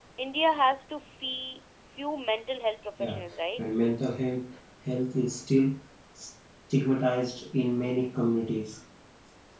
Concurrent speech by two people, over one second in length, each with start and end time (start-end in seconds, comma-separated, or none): none